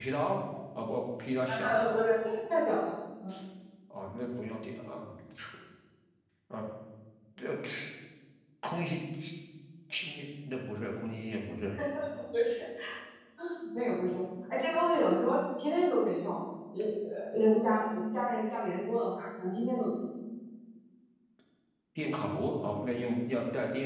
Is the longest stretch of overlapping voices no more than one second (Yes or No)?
Yes